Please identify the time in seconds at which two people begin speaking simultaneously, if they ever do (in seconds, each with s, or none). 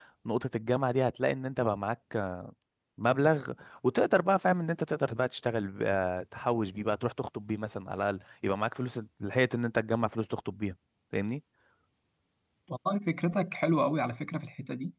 none